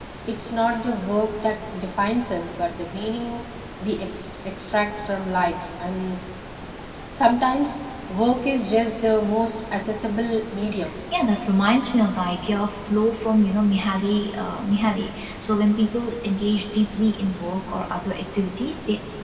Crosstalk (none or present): none